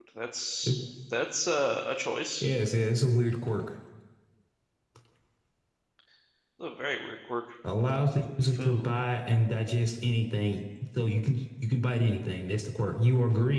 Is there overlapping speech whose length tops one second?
No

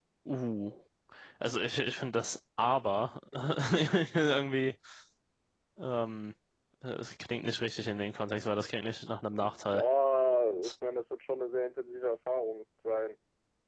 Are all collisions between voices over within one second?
Yes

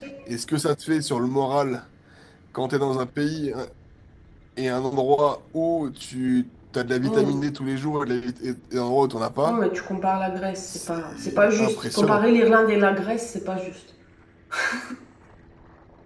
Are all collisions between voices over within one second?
No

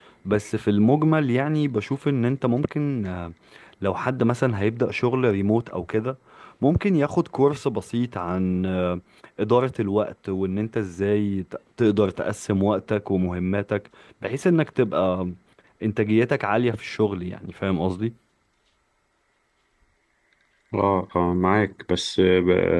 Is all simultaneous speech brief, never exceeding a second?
Yes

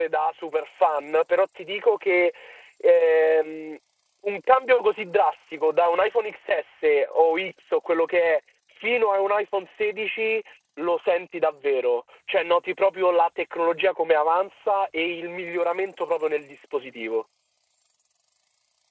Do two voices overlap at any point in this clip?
No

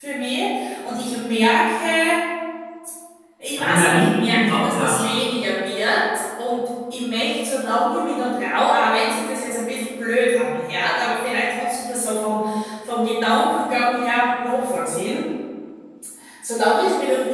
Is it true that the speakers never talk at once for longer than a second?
No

